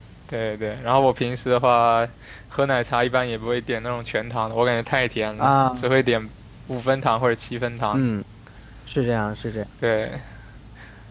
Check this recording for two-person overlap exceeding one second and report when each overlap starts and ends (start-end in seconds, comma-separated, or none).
none